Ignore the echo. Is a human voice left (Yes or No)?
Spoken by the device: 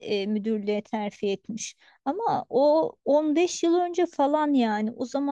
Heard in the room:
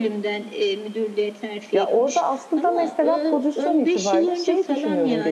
Yes